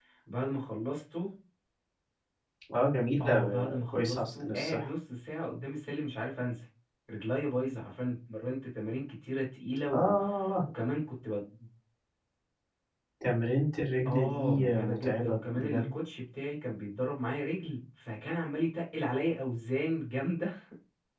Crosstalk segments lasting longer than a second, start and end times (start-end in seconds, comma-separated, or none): 3.2-4.9, 14.1-15.8